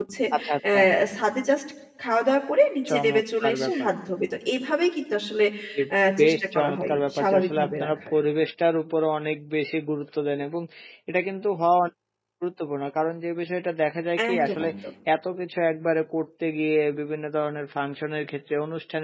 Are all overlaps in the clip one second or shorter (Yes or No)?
No